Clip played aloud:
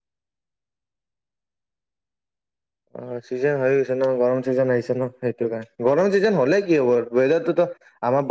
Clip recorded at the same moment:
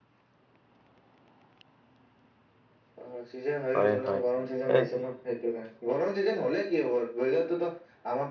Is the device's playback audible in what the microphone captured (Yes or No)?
Yes